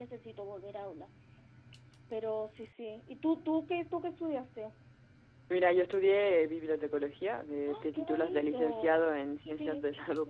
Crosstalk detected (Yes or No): Yes